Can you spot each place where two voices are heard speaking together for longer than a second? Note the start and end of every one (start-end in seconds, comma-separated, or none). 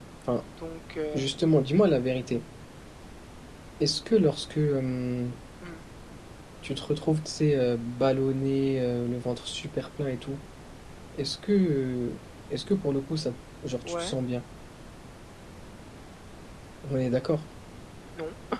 none